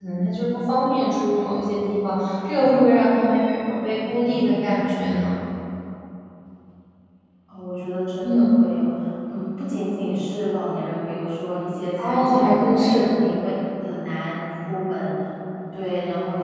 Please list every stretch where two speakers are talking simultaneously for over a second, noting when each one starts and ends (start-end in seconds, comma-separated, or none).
12.0-13.4